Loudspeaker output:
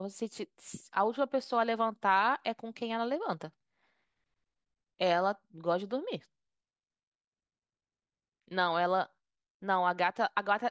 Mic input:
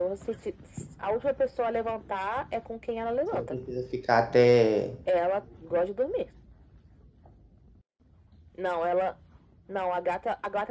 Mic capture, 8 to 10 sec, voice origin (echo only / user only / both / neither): echo only